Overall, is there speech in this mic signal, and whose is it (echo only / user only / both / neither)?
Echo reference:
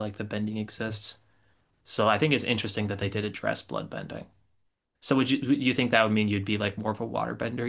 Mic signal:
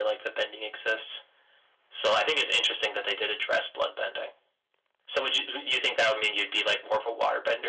echo only